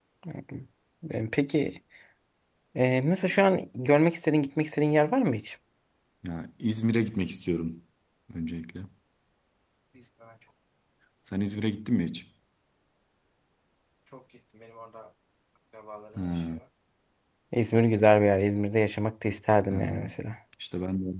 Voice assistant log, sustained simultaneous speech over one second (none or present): none